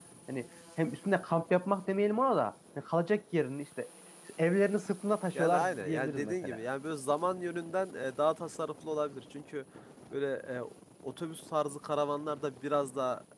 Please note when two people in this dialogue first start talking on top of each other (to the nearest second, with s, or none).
5 s